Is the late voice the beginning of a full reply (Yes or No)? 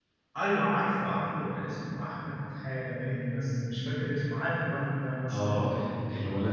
Yes